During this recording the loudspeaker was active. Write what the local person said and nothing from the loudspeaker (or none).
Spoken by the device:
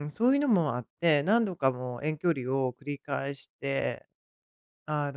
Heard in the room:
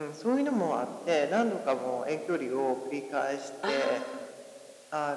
あ